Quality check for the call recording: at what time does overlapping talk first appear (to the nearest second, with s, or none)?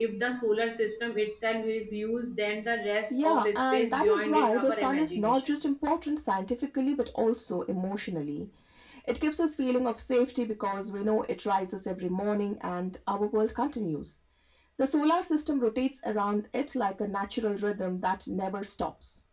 3 s